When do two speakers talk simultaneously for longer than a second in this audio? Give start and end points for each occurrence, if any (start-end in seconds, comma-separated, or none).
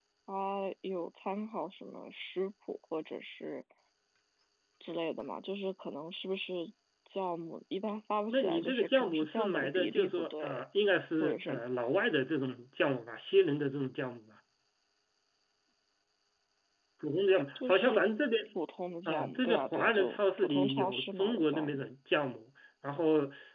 8.3-10.6, 19.1-21.8